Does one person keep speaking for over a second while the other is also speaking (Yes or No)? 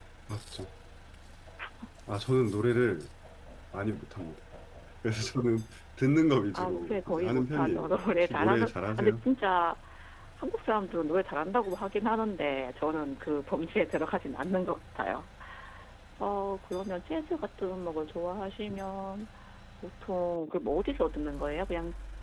Yes